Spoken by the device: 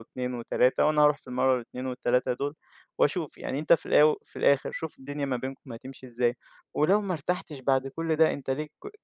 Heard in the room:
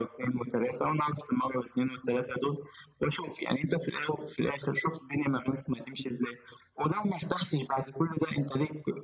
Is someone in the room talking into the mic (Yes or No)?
No